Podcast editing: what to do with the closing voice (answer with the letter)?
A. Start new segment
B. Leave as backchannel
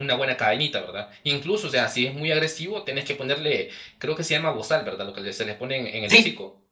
A